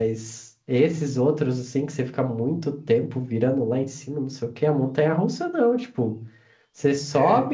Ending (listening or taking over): listening